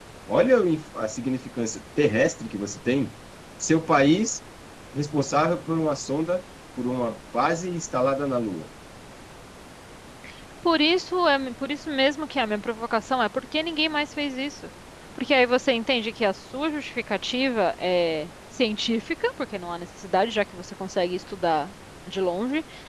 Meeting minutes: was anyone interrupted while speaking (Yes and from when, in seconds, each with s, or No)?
No